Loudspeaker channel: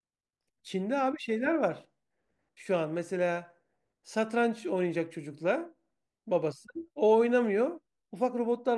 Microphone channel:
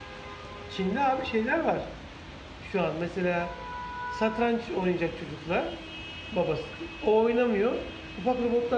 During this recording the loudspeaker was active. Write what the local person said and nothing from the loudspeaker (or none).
none